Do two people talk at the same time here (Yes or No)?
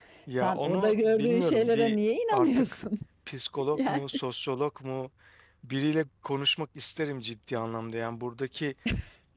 Yes